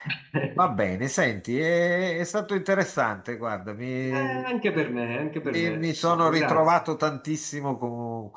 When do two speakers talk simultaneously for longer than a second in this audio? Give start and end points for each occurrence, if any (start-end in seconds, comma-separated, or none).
5.4-6.8